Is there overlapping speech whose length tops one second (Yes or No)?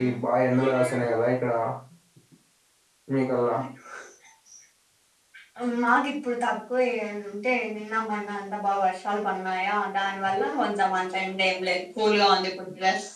No